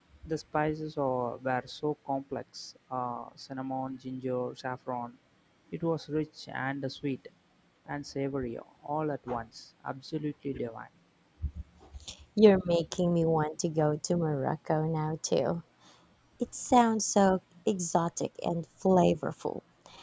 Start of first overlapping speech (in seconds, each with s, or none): none